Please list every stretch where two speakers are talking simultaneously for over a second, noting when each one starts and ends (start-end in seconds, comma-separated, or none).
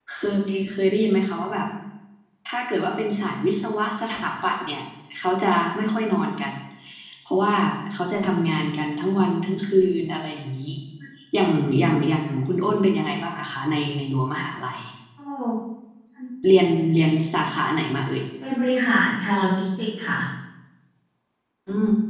none